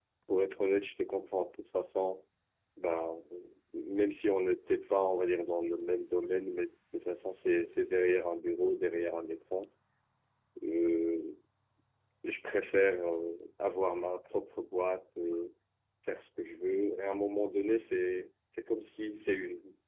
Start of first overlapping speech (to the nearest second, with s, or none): none